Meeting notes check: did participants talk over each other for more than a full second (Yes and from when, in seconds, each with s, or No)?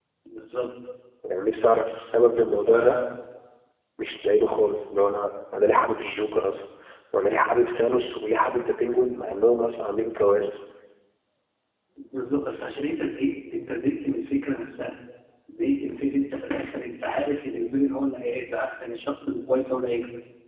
No